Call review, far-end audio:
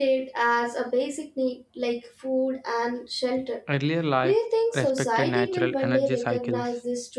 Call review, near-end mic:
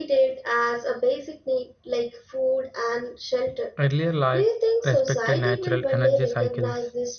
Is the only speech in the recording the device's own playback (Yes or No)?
Yes